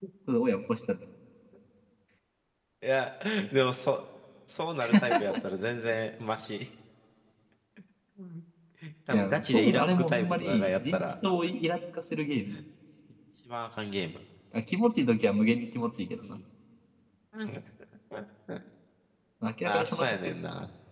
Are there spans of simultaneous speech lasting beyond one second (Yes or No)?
Yes